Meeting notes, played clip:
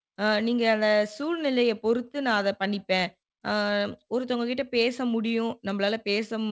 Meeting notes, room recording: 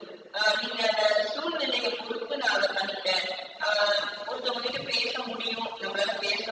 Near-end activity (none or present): none